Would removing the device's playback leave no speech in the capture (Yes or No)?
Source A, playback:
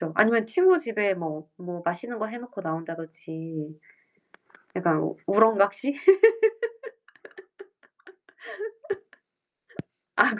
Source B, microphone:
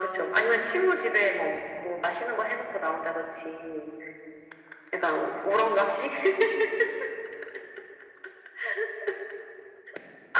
Yes